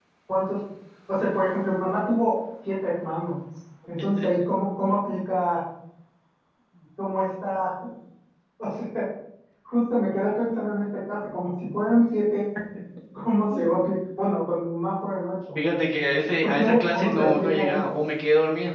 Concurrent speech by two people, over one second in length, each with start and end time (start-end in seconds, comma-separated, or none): 16.4-17.8